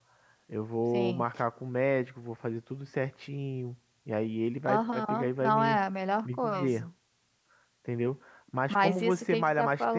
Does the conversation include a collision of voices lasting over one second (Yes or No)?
Yes